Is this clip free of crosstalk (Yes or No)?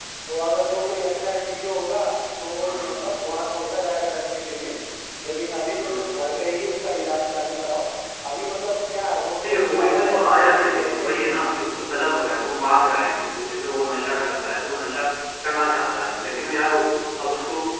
No